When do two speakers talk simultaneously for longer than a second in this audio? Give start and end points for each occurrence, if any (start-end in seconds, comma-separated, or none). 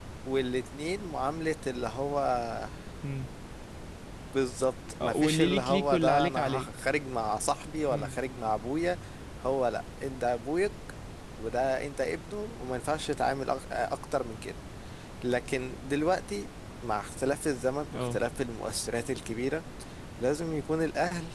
5.0-6.7